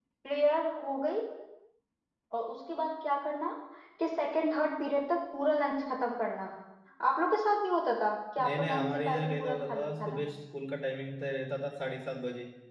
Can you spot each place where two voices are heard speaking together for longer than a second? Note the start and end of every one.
8.4-10.2

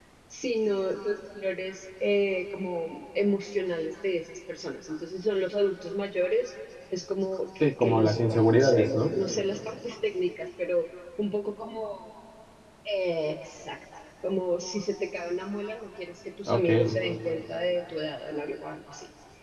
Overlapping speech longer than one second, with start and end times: 7.6-9.1

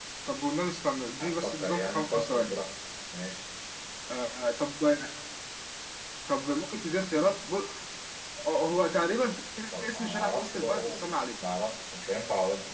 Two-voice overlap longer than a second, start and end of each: 1.2-2.6, 9.8-11.0

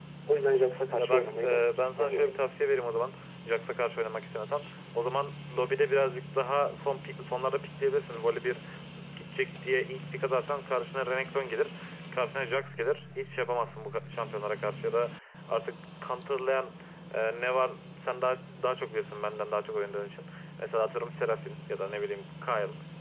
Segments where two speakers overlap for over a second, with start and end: 1.0-2.4

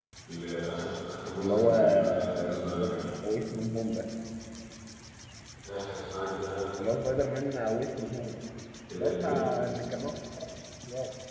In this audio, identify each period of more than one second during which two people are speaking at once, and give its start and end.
1.4-3.0

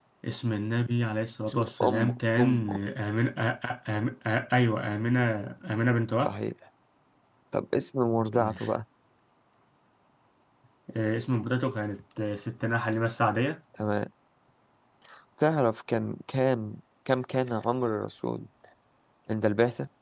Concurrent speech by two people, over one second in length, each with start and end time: 1.5-2.8

